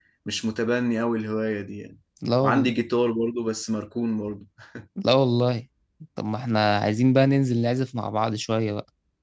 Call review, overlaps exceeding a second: none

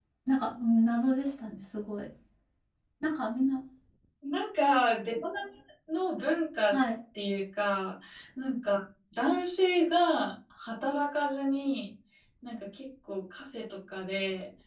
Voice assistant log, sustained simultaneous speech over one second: none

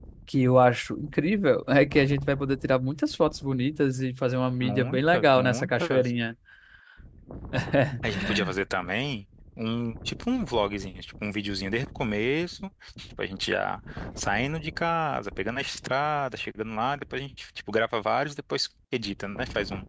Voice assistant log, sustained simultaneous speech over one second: present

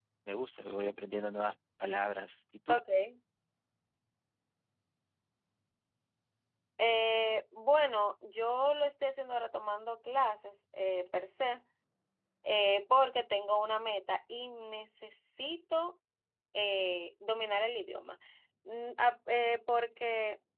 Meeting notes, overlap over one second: none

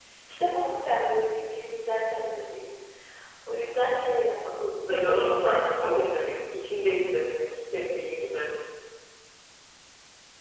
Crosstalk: present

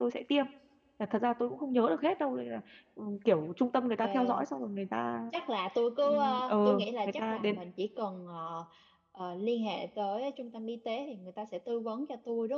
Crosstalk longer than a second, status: present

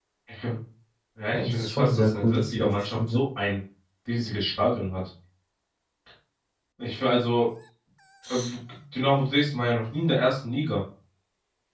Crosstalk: present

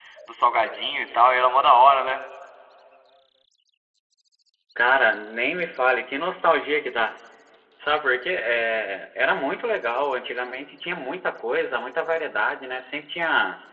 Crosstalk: none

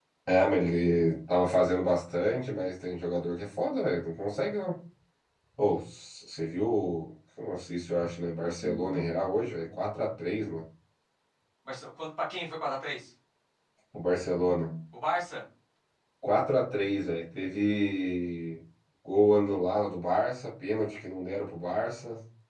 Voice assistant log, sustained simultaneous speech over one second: none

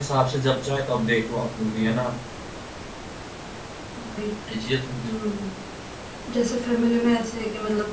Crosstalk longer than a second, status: none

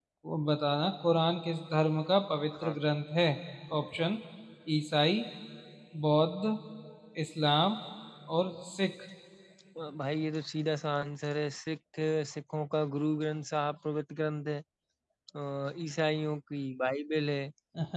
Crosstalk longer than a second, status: none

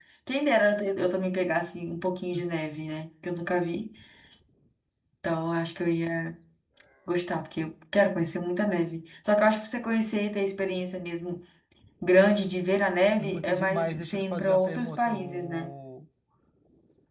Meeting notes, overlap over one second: present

